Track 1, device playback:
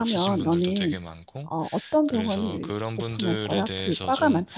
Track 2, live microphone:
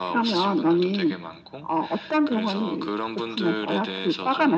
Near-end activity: none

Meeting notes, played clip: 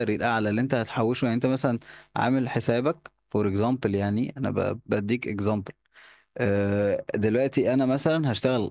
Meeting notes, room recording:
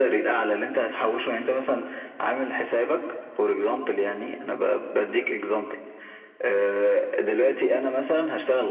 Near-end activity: none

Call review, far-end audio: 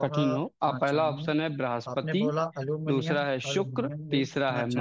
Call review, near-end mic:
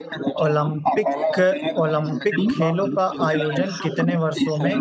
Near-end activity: present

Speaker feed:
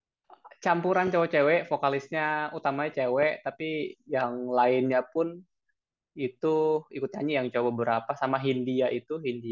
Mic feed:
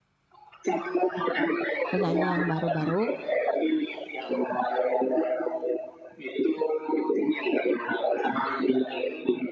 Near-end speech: present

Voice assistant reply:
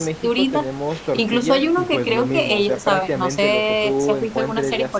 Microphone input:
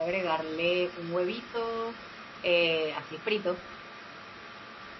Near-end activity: present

